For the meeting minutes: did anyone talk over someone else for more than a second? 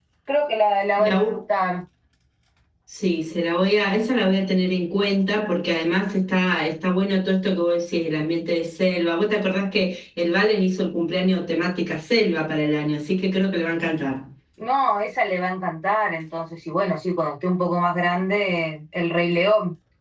No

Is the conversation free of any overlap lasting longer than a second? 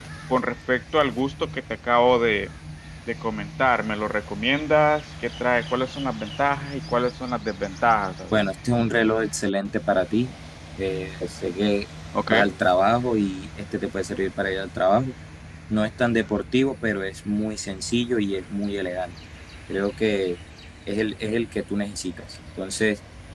Yes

